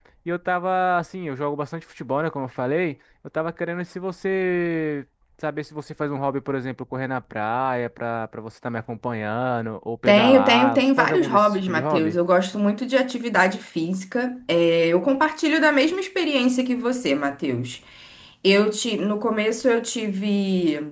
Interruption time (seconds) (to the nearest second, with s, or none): 10 s